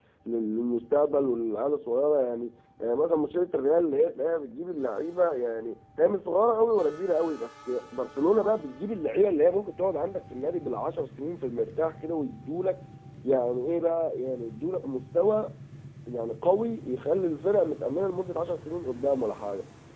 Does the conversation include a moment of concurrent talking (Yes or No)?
No